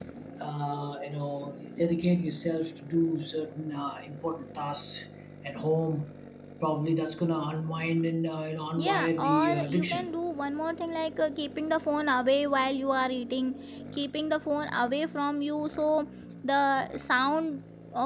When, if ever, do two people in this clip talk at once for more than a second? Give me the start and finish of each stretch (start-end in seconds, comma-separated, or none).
8.8-10.1